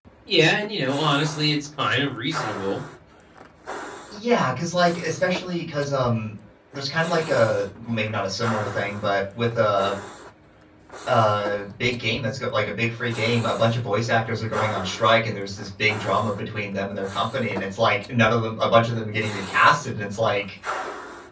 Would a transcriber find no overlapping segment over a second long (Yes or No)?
Yes